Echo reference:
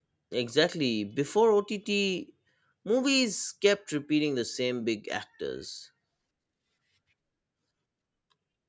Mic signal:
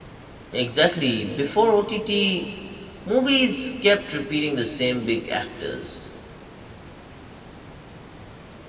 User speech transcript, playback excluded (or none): none